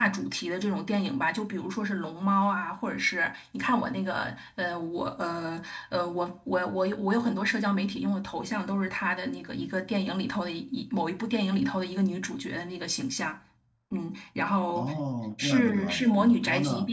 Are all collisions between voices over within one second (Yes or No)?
No